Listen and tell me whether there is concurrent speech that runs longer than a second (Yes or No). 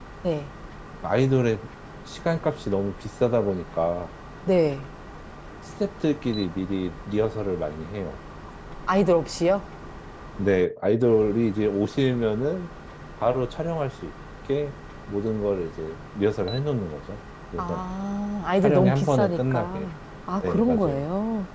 Yes